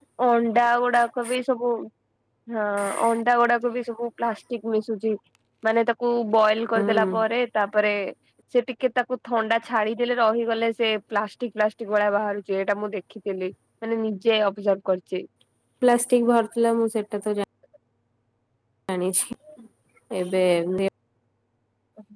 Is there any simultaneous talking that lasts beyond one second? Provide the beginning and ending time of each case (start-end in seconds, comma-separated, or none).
none